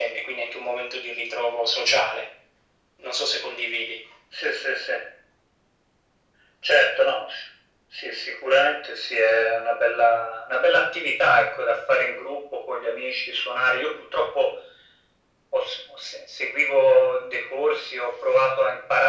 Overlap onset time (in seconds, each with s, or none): none